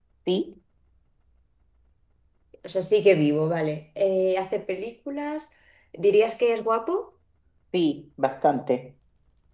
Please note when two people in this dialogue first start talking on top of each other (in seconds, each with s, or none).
none